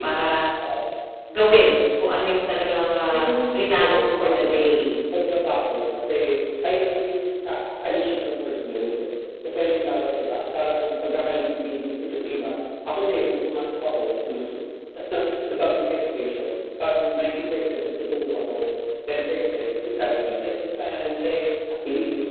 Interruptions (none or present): present